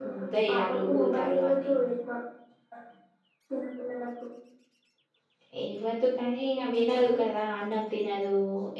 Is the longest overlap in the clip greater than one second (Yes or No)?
Yes